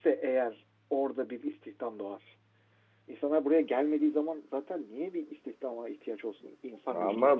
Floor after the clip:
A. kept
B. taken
B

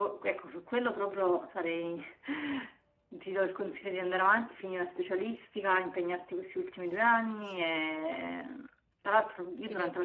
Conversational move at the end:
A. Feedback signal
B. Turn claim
A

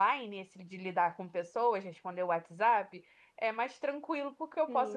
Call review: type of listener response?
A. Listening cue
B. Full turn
B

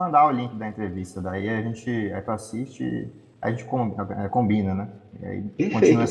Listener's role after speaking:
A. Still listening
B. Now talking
B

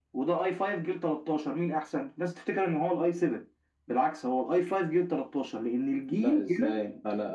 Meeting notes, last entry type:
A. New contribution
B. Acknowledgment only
A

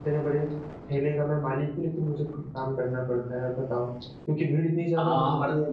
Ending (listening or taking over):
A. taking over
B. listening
A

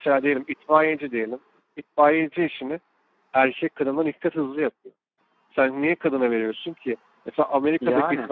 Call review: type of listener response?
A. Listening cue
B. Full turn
A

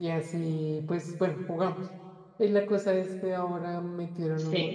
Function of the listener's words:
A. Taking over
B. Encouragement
B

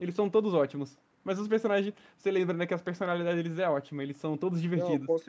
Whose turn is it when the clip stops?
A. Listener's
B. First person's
A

